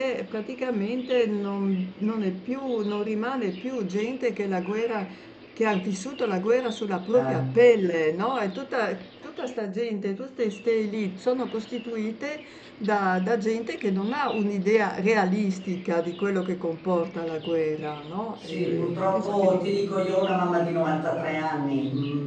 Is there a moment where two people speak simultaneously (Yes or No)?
Yes